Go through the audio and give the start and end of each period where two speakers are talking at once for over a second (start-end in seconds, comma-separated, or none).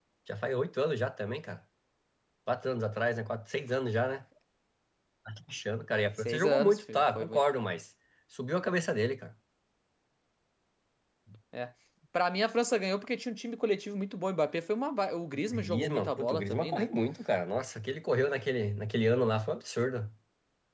6.2-7.4, 15.5-16.9